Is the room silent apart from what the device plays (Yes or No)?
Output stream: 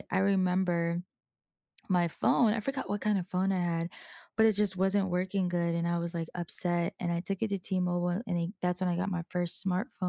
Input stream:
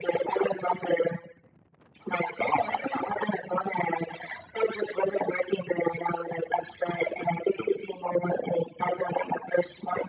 Yes